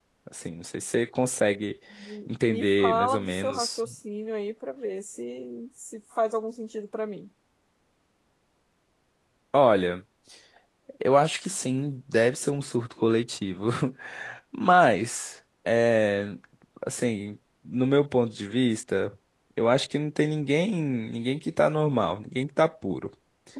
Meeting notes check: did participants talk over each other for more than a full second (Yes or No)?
Yes